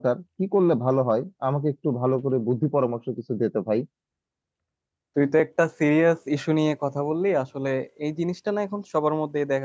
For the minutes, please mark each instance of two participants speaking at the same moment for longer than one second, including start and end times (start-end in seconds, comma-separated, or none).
none